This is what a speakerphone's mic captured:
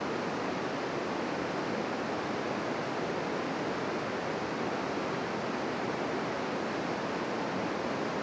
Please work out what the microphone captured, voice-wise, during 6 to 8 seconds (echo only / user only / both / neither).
neither